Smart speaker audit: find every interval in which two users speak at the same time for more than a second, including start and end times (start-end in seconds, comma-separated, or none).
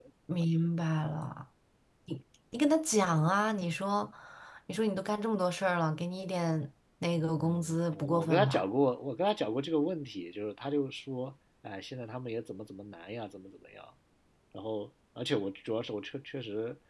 7.4-8.6